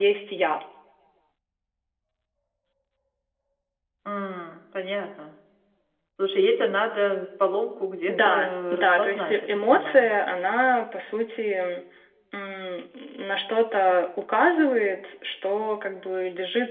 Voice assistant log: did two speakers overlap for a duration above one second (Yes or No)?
Yes